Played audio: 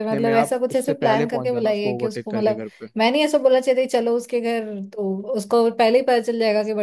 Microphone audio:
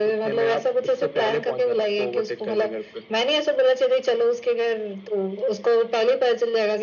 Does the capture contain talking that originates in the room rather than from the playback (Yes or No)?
No